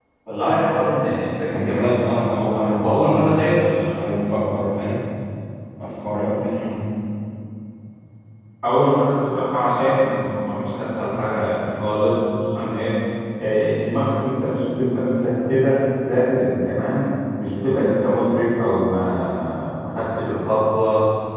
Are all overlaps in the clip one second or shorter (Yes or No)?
No